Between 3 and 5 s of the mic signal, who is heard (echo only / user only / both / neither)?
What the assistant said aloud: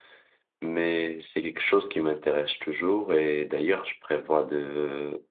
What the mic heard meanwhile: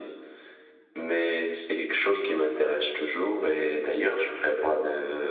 echo only